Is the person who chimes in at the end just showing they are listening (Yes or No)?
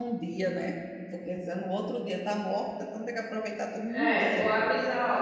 No